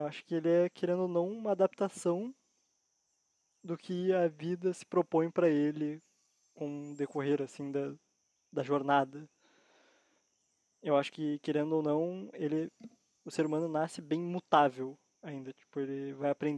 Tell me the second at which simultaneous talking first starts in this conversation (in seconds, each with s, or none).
none